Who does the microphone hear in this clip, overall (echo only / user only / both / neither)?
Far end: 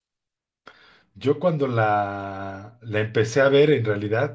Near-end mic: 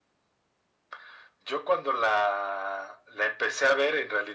echo only